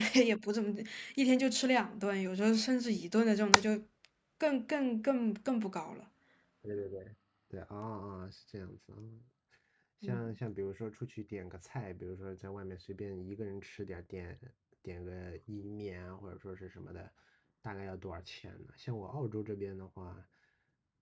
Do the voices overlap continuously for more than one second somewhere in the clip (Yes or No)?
No